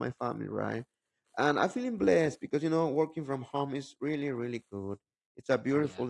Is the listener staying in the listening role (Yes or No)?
Yes